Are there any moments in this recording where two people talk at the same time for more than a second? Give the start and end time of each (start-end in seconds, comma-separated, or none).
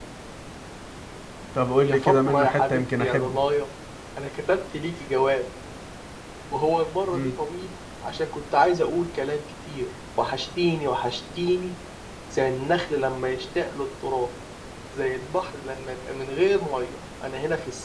1.9-3.4